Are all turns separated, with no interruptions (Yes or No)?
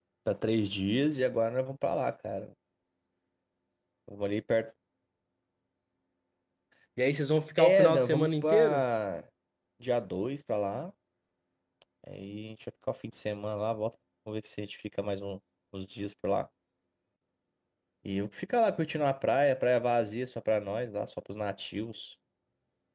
No